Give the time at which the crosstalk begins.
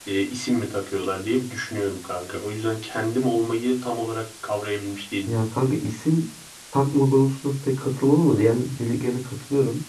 none

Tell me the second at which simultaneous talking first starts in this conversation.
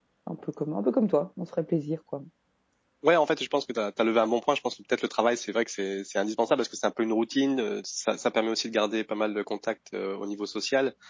none

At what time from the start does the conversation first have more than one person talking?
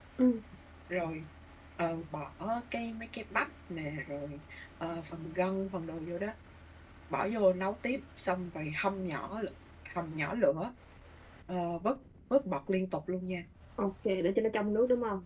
none

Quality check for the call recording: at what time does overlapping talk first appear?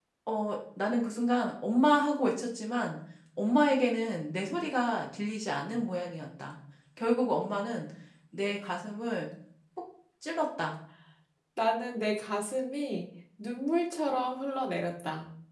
none

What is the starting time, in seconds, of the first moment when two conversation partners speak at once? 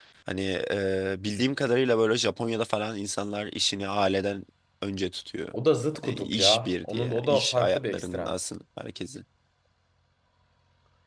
6 s

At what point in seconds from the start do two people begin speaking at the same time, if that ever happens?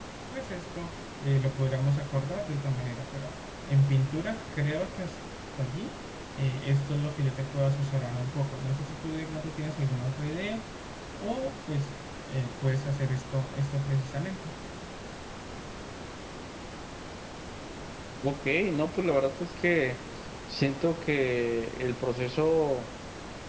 none

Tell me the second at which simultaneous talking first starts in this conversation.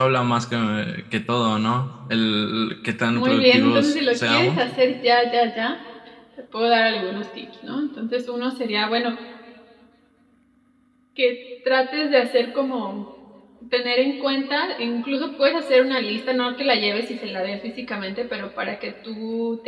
3 s

